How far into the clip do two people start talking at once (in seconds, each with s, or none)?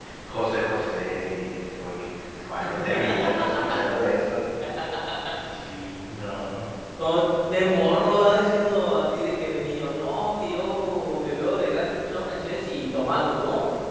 none